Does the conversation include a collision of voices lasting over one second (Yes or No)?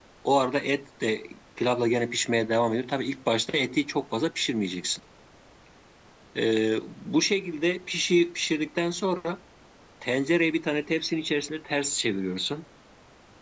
No